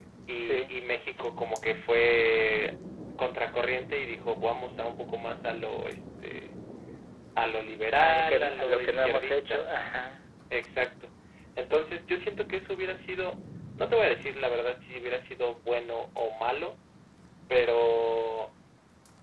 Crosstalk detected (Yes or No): Yes